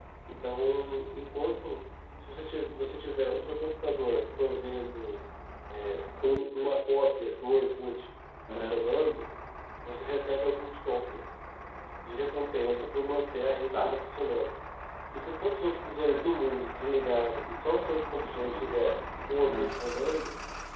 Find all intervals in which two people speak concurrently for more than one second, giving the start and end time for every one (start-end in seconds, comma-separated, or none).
none